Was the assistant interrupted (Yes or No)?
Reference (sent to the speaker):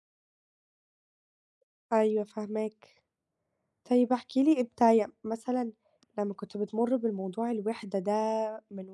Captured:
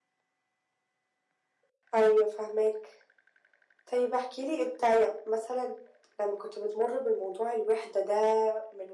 No